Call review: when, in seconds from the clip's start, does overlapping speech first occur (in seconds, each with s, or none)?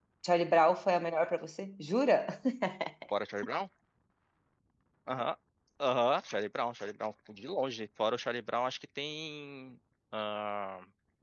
none